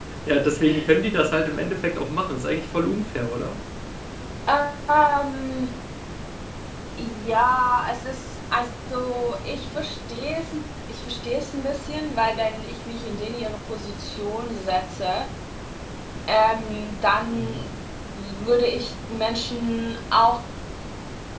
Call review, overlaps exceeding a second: none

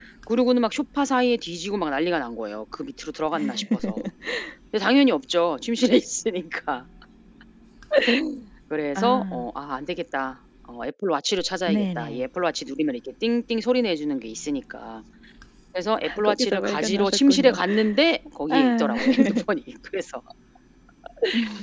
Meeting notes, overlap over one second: present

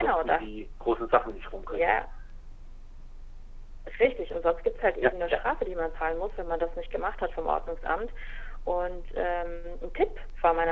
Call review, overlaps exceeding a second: none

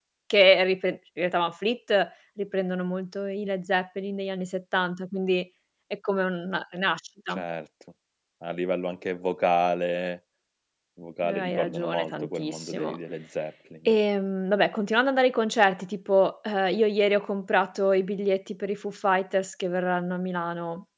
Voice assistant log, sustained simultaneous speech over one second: present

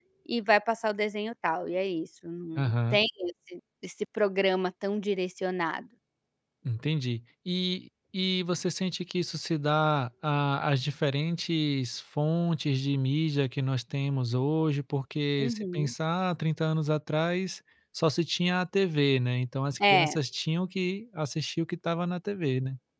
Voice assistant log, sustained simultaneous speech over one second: none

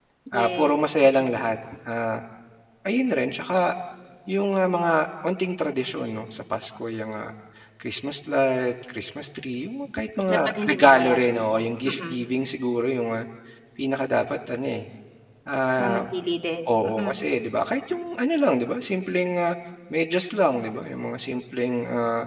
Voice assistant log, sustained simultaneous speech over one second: present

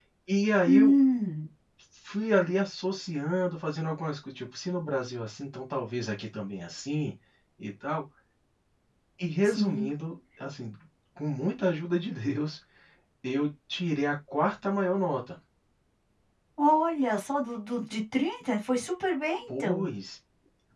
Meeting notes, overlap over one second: none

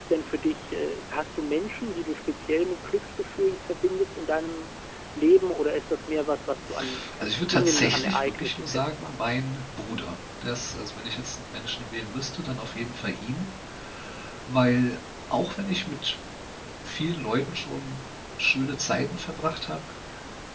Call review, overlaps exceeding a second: present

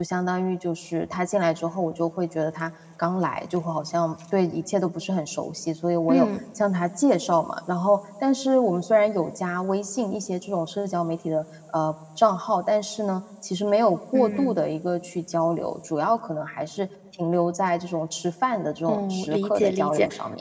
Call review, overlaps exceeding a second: present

